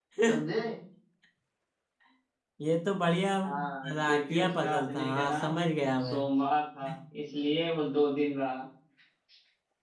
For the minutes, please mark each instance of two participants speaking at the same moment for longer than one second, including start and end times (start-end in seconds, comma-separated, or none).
3.4-5.5